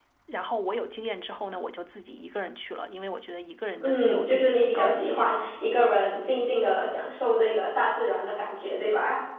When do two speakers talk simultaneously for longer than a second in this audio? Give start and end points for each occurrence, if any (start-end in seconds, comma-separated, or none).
3.8-5.3